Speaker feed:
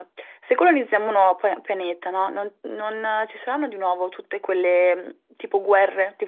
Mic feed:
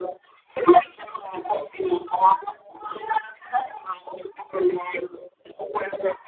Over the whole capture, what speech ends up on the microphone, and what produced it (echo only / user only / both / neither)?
echo only